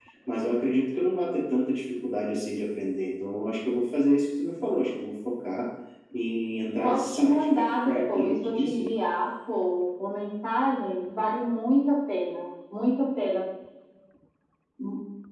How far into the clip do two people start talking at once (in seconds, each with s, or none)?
6.8 s